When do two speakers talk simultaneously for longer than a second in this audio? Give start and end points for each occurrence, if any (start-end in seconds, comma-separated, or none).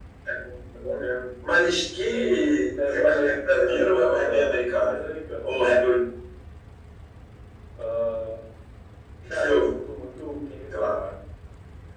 2.9-5.0